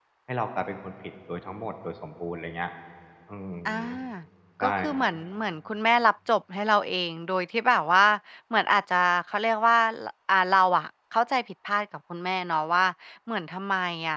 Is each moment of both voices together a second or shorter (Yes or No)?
Yes